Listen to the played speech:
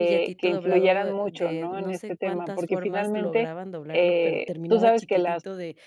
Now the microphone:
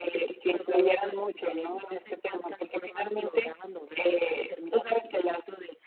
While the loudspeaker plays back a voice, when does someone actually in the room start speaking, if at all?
none

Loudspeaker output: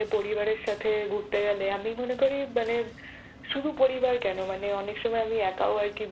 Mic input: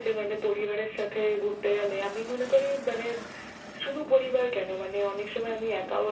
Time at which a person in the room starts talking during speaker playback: none

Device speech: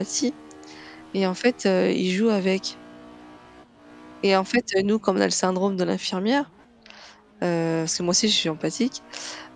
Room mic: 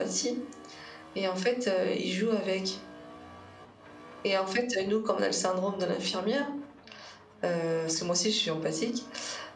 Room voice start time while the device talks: none

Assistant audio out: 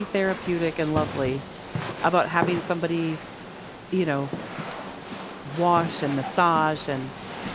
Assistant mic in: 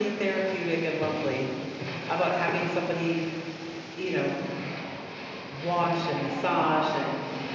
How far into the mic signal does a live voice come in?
none

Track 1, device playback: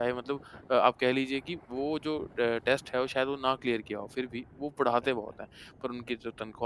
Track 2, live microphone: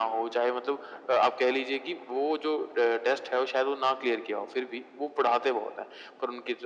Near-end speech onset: none

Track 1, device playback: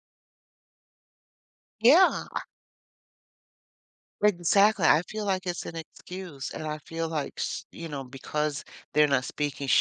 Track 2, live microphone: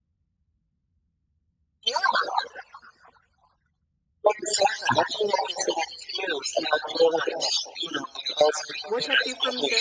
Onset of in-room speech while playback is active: 8.8 s

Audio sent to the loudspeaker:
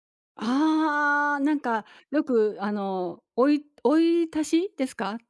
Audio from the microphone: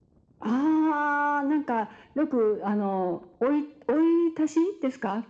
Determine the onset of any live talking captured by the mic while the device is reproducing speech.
none

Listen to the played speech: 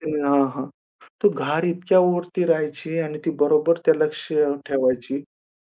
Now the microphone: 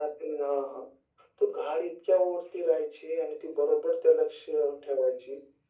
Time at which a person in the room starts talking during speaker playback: none

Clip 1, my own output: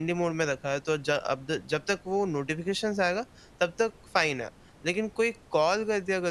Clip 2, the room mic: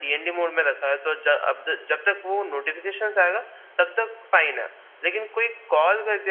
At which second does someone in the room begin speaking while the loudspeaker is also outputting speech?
none

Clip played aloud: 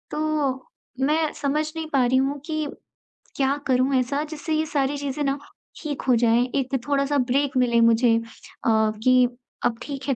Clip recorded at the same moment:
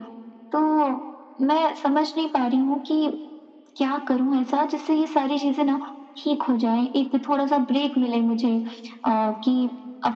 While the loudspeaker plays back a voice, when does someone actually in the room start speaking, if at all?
none

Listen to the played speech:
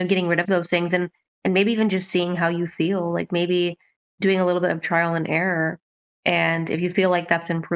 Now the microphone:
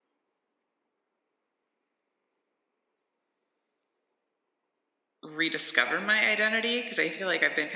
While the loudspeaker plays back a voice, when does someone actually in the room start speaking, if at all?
5.2 s

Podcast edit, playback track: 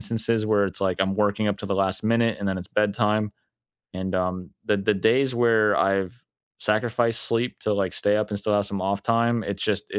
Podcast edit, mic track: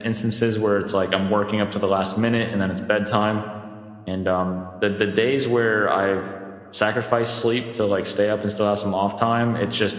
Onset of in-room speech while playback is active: none

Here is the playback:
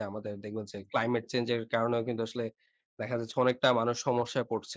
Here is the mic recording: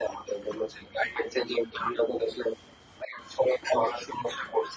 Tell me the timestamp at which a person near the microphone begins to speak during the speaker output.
none

